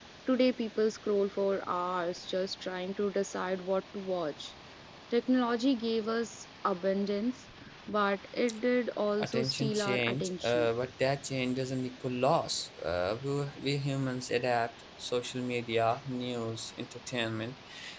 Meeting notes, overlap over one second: present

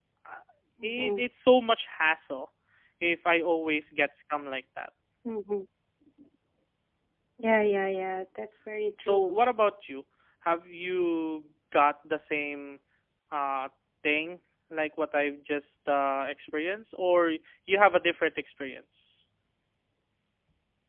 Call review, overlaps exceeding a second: none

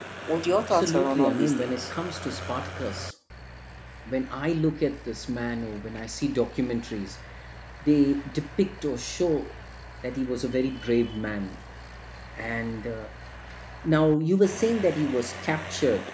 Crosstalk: present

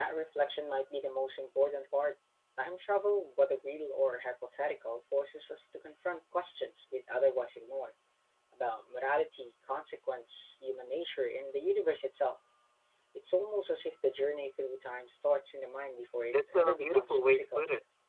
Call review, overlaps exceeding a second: present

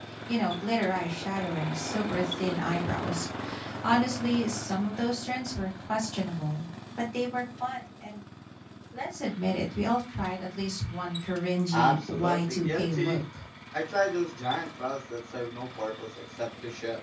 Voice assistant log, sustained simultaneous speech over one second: present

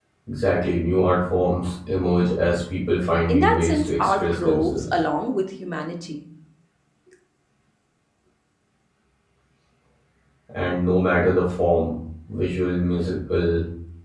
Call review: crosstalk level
present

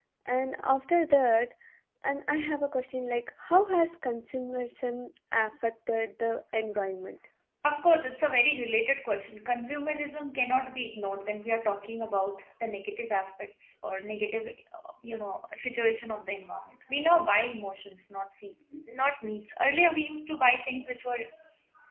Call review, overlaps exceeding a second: none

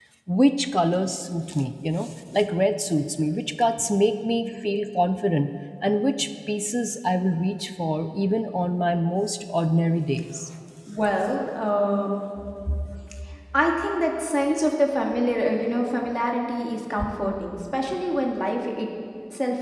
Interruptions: none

